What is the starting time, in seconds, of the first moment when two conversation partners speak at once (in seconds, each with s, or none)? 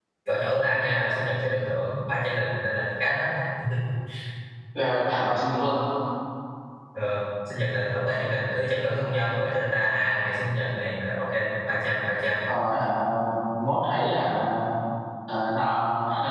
none